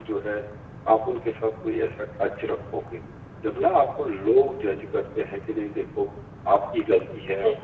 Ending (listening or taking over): listening